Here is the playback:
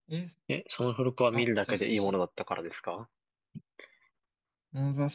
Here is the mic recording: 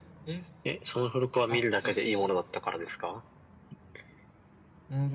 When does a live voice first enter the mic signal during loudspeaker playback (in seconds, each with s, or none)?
none